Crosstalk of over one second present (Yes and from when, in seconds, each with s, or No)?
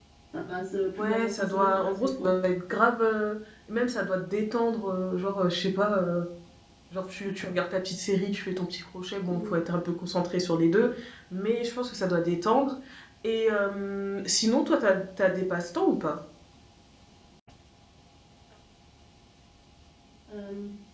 Yes, from 1.0 s